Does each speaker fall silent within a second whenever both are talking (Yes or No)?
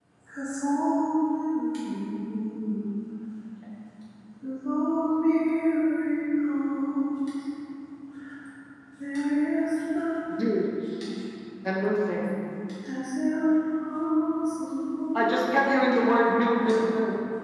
Yes